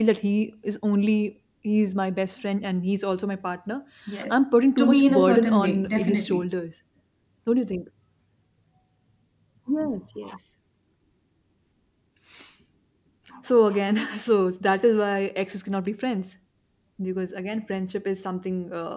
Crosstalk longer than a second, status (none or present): present